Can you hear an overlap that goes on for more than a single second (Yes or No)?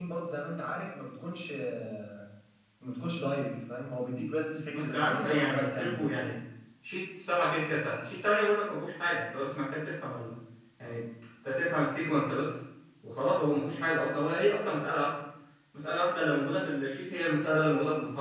Yes